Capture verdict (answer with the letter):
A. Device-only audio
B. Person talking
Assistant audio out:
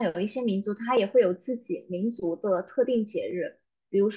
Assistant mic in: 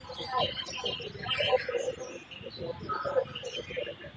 A